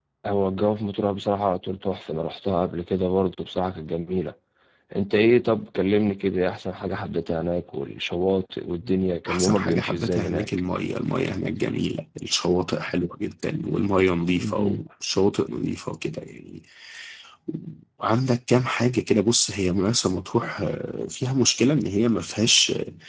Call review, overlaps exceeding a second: present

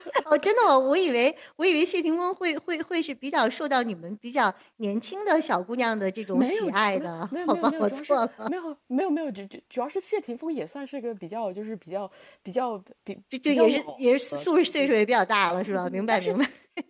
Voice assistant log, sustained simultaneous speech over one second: present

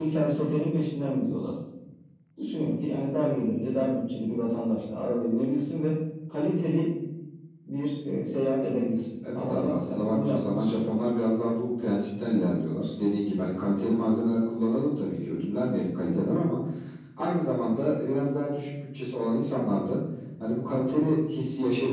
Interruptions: present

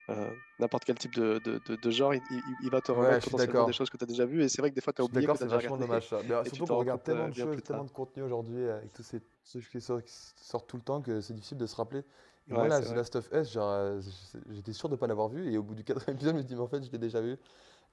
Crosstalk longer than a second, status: present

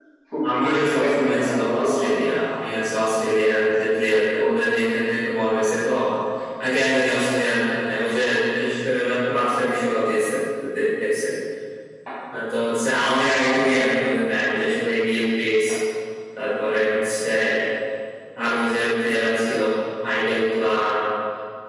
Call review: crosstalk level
present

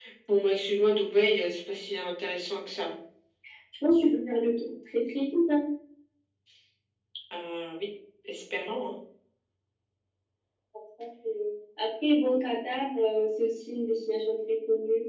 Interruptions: none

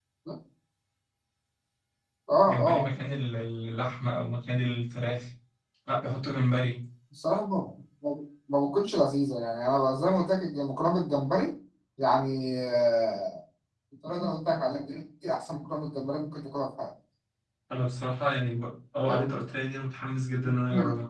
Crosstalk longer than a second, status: none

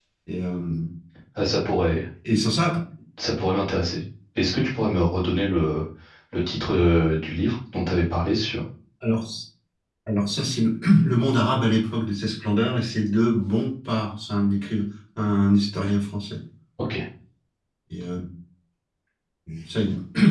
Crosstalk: none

